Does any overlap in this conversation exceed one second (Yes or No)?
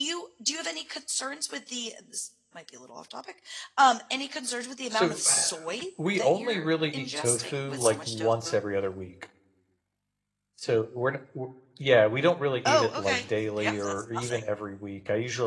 Yes